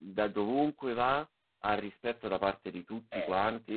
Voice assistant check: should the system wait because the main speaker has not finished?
Yes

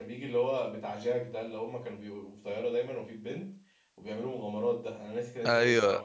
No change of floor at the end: No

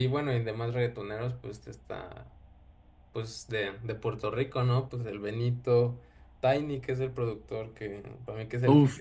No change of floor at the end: No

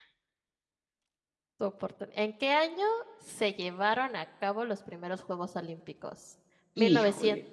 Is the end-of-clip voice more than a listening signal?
No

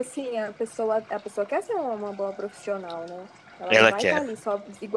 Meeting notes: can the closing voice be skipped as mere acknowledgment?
Yes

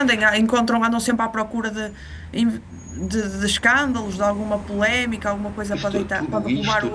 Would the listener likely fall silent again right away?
No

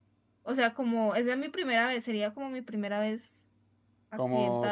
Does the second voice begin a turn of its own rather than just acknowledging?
Yes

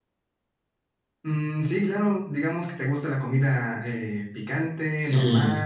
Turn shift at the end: Yes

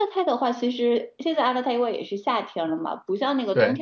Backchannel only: Yes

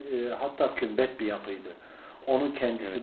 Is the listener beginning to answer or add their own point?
No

